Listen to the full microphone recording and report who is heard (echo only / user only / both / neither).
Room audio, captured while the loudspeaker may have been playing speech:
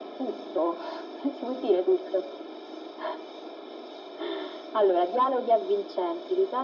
echo only